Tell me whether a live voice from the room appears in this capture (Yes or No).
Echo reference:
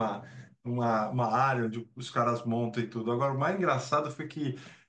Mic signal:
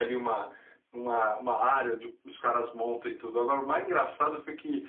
No